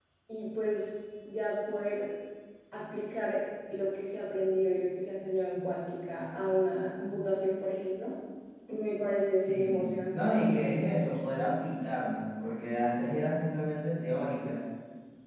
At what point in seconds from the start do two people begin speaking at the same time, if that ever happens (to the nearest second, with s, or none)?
9 s